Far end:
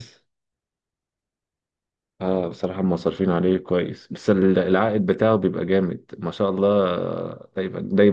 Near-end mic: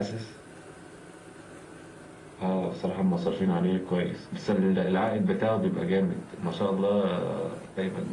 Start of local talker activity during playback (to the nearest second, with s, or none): none